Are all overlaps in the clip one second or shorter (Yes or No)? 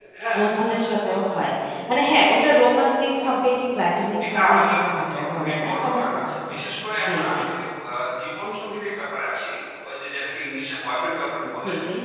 No